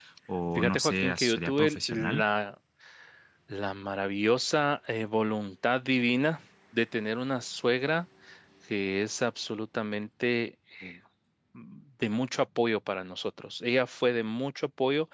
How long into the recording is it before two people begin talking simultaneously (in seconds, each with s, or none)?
0.6 s